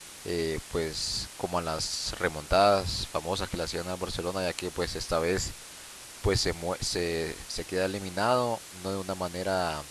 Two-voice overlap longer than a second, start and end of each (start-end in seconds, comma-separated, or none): none